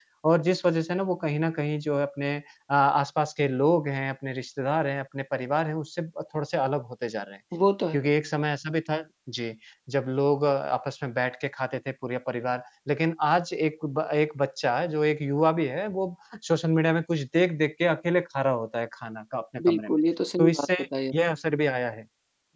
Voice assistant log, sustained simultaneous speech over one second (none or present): none